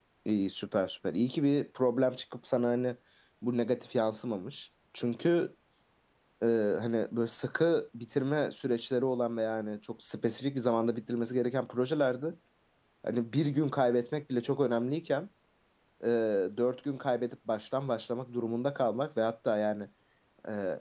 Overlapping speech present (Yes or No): No